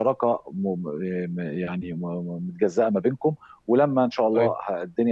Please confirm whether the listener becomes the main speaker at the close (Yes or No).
No